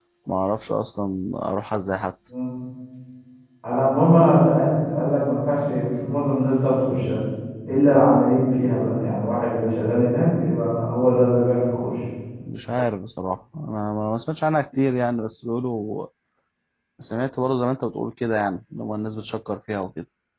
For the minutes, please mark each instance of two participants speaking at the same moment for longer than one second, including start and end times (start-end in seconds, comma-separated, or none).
none